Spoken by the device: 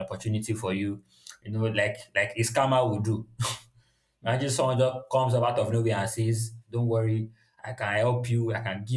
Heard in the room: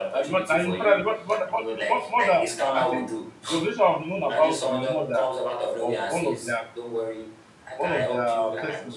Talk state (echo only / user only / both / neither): both